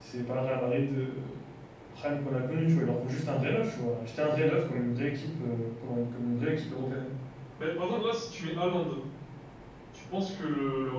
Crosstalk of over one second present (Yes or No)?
No